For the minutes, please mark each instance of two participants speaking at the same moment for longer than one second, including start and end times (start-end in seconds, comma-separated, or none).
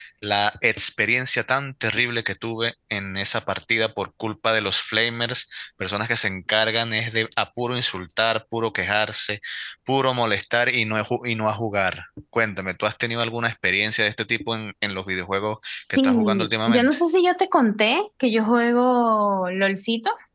15.8-17.0